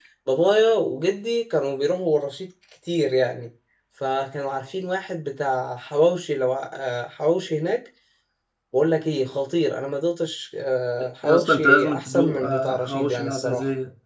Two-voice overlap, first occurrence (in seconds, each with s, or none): 11.2 s